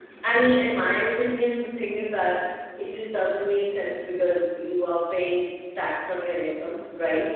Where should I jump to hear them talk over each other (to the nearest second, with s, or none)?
none